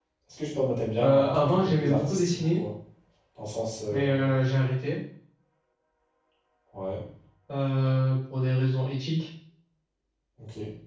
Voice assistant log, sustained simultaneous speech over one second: present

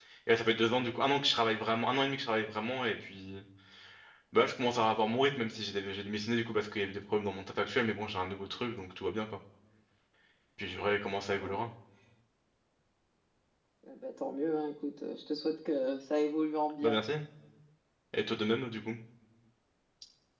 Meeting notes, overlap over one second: none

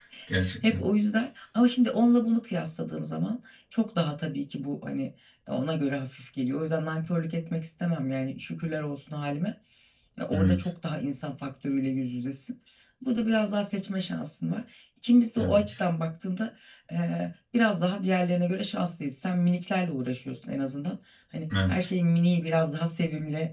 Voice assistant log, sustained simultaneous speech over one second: none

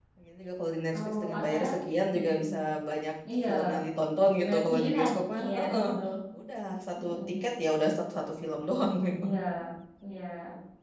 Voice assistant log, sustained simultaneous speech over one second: present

